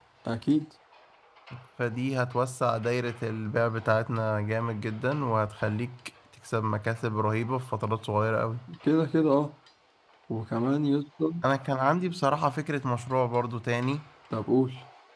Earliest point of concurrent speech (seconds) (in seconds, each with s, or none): none